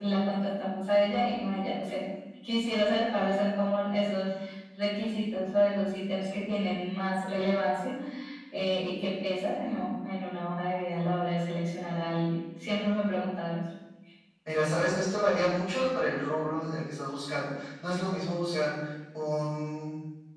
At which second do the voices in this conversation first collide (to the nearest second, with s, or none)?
none